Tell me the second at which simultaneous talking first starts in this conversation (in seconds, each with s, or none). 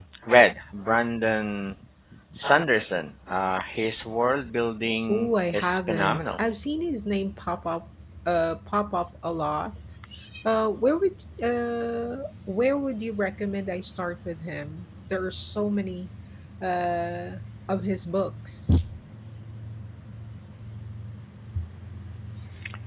5.1 s